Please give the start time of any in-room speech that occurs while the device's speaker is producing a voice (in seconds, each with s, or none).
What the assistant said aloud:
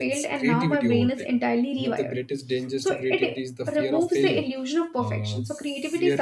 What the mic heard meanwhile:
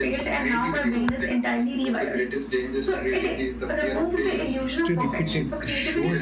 4.6 s